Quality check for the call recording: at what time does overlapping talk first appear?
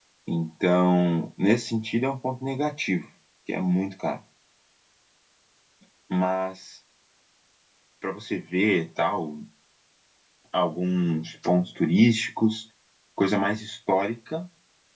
none

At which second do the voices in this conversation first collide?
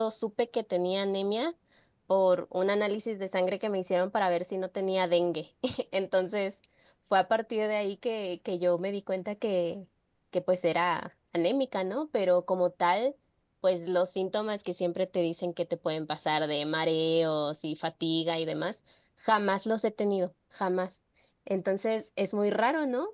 none

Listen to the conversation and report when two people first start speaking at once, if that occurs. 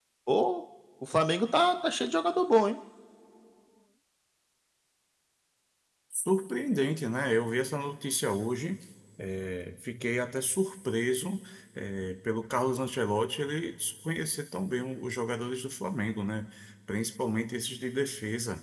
none

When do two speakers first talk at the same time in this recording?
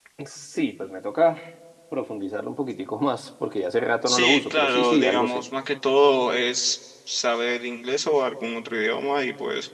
4.1 s

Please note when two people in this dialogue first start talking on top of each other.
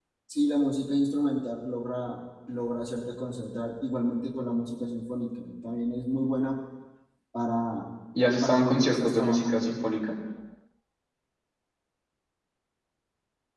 8.4 s

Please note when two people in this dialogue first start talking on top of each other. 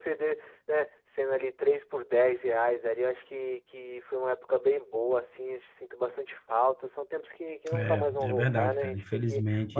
7.7 s

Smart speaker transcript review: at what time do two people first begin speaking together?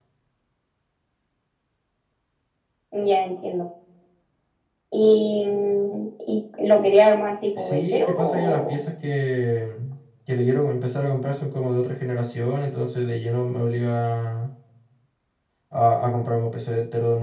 7.6 s

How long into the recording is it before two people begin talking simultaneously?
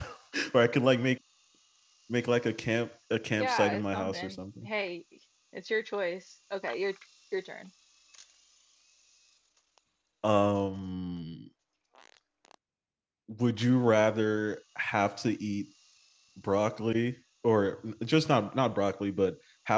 3.4 s

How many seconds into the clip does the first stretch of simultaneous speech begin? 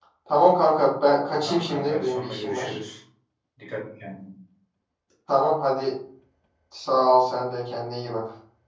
1.4 s

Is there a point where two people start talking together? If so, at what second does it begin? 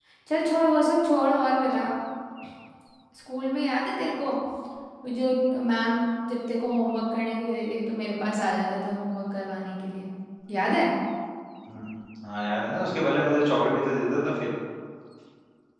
none

